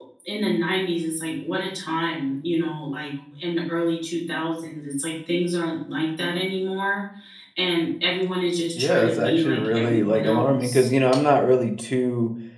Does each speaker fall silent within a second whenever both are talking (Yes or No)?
No